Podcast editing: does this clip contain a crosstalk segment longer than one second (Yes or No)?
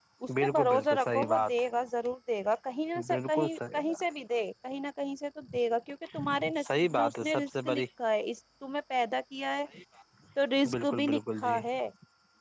Yes